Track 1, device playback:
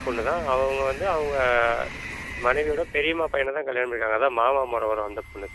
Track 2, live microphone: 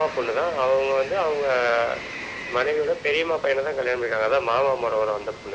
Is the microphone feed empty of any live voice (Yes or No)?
Yes